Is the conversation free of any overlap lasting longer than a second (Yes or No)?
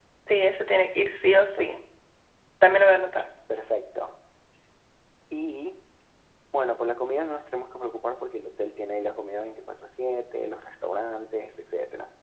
Yes